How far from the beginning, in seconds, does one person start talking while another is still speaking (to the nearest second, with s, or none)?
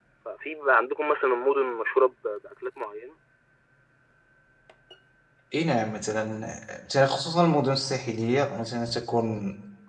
none